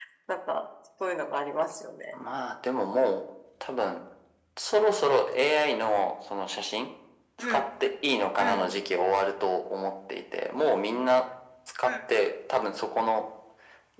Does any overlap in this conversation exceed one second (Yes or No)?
No